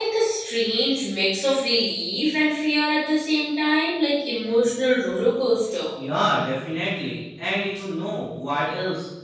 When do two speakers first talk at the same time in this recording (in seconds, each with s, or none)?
none